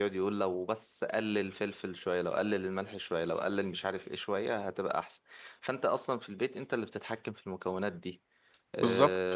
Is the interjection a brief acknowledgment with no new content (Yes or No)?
Yes